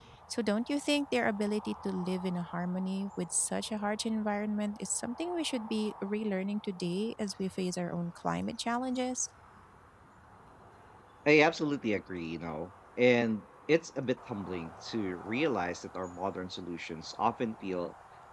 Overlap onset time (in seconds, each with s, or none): none